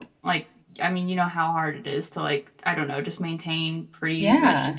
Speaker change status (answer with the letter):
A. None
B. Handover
A